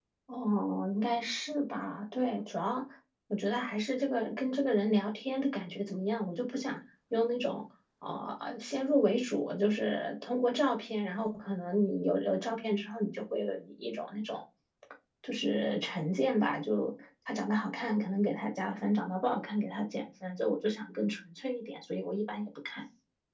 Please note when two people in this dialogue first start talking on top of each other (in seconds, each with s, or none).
none